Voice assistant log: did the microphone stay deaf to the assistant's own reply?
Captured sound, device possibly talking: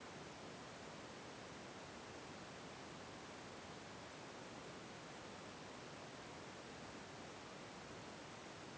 Yes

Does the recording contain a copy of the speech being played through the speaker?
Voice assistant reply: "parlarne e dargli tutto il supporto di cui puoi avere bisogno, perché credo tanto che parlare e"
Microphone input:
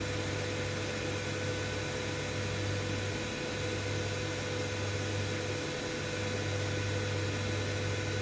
No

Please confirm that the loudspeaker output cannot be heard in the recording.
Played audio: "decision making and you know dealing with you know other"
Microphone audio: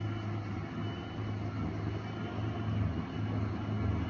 Yes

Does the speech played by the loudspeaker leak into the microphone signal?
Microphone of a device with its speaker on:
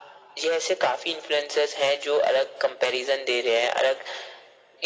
Yes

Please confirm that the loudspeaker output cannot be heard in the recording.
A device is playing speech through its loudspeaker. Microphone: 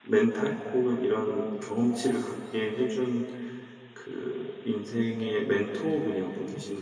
Yes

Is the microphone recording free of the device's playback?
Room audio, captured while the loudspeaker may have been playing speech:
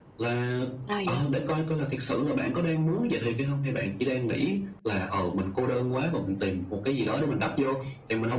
No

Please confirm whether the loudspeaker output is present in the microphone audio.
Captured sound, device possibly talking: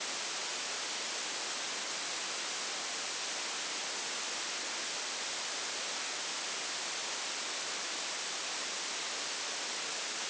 No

